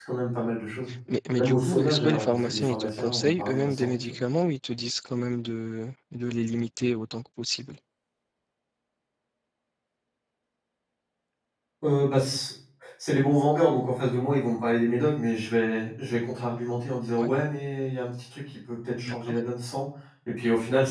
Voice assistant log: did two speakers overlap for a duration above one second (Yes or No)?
Yes